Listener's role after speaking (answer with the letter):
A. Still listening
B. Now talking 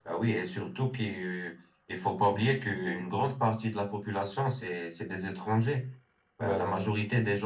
A